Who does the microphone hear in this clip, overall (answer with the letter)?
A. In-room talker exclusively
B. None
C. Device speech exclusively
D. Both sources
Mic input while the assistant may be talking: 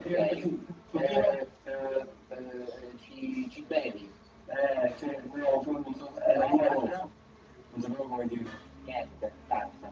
C